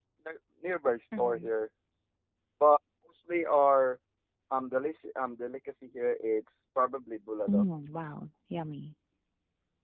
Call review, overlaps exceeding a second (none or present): none